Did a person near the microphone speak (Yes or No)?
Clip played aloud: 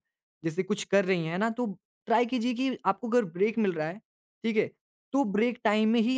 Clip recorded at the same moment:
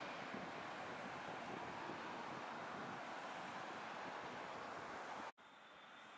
No